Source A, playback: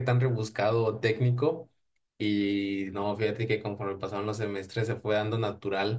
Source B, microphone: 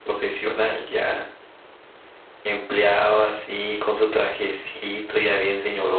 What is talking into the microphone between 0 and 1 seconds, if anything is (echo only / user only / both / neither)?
user only